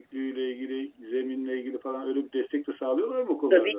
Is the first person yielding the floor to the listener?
Yes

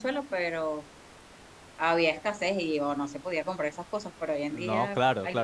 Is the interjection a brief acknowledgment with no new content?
No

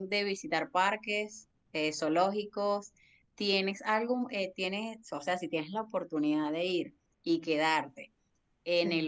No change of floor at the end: Yes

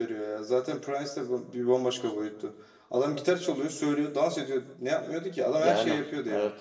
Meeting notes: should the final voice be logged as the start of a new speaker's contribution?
Yes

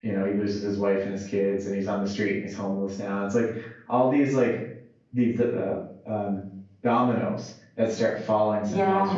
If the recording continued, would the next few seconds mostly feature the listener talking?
No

